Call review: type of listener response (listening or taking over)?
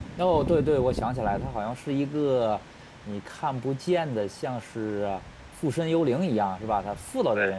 listening